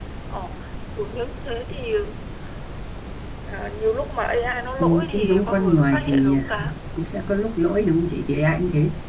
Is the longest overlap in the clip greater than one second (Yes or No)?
Yes